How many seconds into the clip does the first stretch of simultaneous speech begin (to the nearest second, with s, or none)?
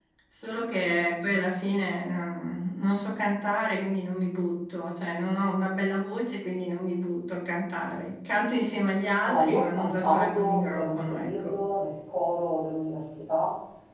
9 s